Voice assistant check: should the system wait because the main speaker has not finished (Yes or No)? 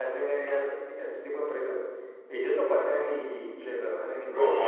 No